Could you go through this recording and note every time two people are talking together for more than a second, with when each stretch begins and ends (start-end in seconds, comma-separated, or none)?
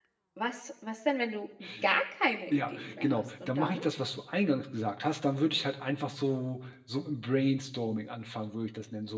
2.5-3.8